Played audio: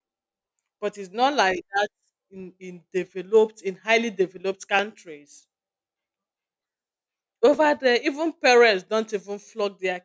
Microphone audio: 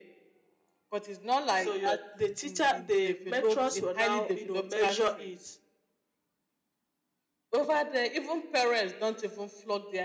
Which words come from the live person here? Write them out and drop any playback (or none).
So your the teacher, the matrons will now, you know, measure it.